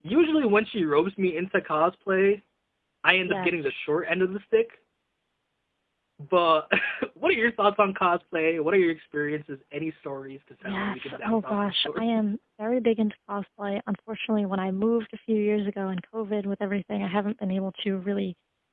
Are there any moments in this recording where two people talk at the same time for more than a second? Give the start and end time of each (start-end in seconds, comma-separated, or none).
10.6-12.3